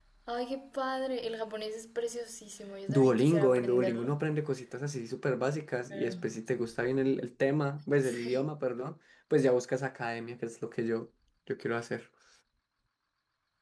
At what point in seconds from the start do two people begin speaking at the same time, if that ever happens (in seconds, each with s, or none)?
2.9 s